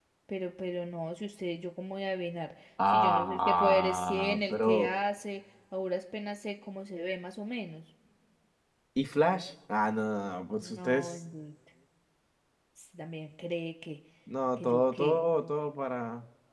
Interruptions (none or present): present